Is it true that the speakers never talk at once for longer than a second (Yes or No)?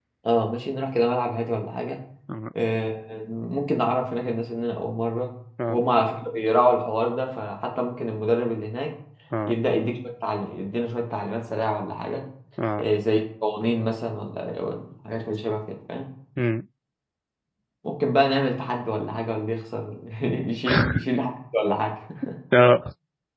Yes